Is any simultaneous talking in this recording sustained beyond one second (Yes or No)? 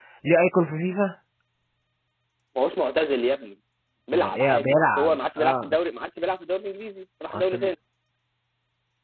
Yes